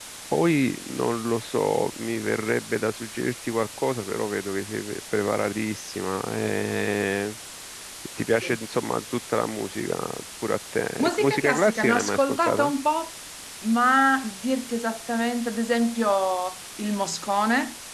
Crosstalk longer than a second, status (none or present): present